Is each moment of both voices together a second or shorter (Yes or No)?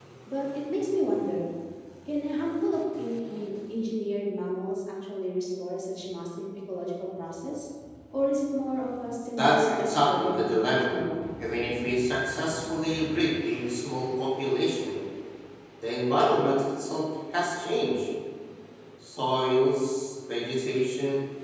No